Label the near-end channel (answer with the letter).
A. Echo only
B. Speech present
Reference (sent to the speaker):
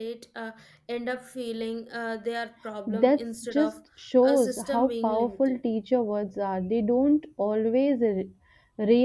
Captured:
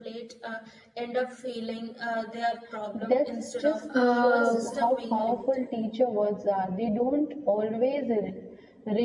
B